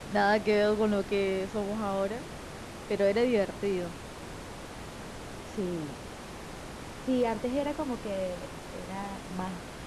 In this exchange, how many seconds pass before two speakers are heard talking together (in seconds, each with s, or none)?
none